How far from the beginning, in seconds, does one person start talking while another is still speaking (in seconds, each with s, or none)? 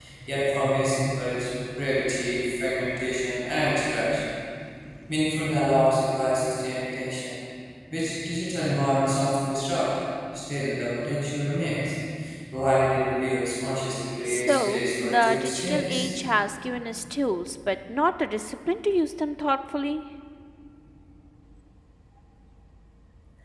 14.3 s